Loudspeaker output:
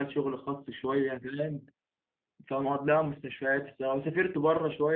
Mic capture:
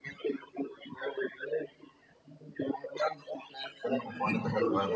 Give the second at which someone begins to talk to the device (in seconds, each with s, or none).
3.9 s